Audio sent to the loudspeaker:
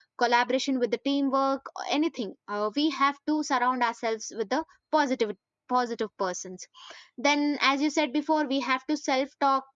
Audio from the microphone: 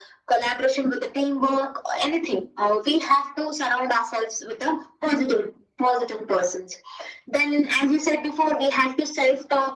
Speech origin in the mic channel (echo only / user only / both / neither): echo only